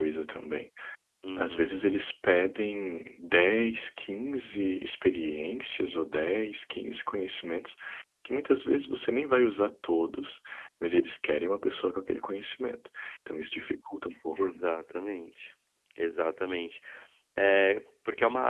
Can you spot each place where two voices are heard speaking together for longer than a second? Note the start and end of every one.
none

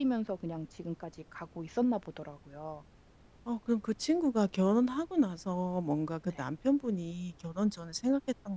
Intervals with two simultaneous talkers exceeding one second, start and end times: none

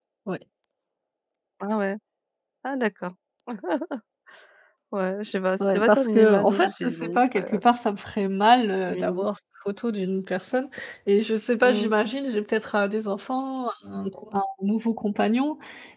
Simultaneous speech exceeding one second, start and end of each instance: 5.6-7.6

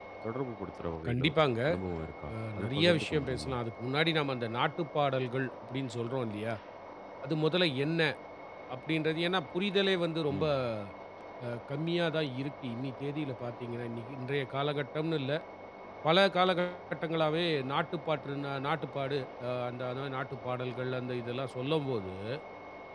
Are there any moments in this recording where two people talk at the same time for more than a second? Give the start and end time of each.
2.3-3.5

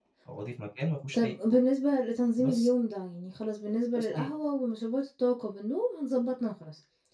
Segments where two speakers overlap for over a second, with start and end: none

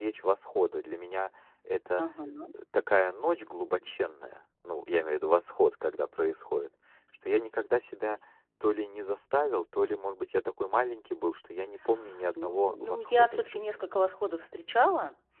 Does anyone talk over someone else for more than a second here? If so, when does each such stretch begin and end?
12.3-13.7

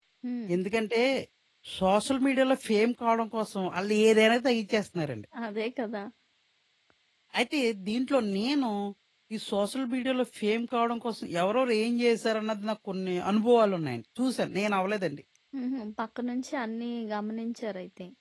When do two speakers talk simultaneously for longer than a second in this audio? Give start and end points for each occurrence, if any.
none

